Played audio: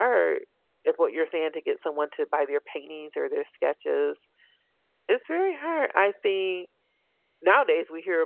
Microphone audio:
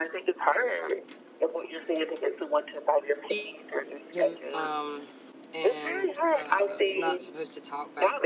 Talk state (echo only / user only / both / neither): both